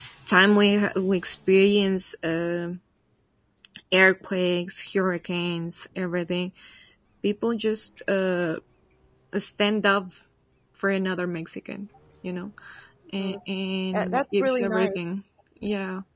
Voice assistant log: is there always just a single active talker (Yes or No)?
No